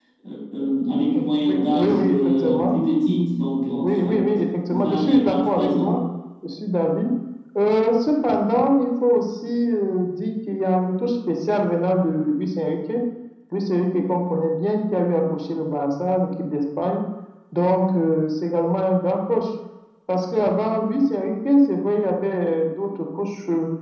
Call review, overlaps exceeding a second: present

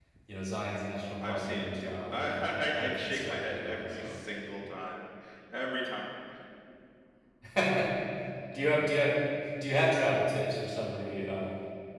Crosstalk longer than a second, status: present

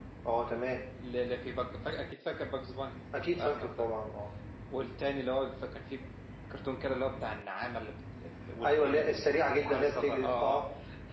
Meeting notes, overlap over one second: present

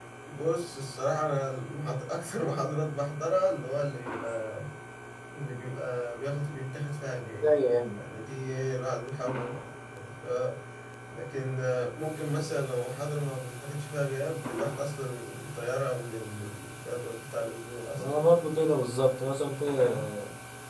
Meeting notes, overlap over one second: none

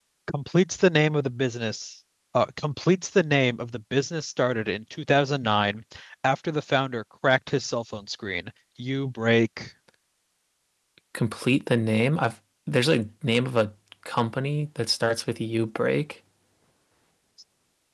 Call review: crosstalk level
none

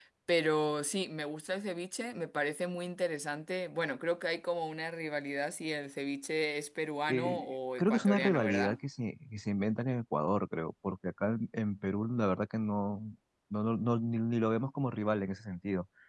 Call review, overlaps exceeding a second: present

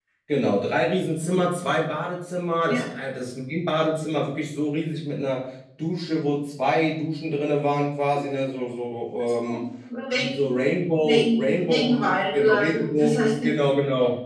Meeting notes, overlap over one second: present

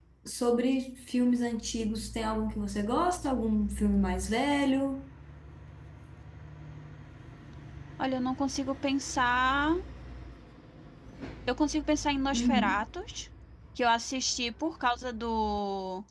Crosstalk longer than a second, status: none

